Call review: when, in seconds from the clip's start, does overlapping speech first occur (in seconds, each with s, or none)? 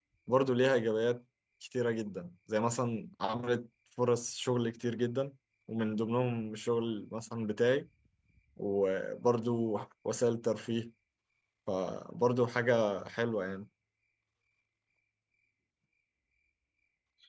none